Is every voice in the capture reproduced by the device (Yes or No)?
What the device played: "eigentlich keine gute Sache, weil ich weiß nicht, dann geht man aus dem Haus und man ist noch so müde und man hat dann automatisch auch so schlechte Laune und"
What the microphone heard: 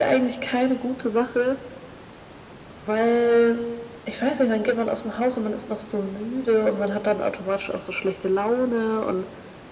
Yes